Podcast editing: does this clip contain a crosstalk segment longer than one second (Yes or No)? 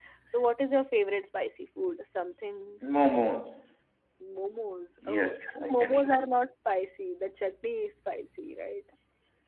Yes